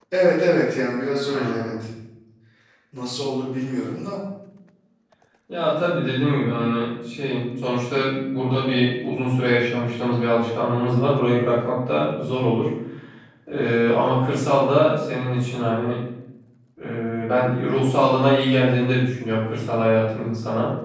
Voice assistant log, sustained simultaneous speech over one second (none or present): none